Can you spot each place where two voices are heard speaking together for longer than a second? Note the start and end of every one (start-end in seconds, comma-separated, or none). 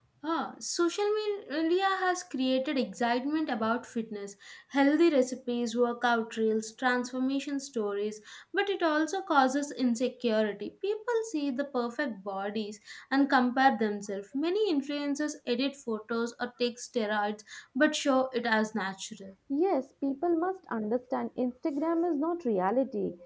none